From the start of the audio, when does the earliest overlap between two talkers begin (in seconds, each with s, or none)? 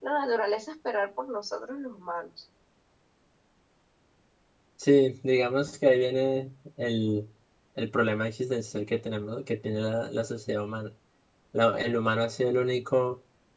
none